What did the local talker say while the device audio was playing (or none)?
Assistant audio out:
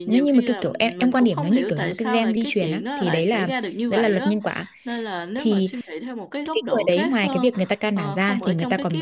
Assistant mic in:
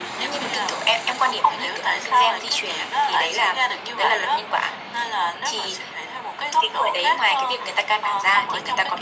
none